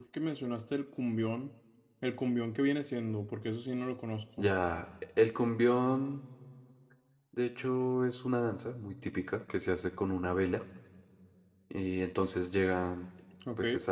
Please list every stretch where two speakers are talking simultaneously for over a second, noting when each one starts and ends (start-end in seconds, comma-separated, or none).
none